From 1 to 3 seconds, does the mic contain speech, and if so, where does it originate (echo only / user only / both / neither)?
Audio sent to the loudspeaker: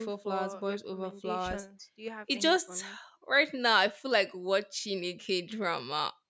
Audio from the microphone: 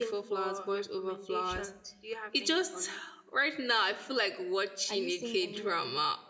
echo only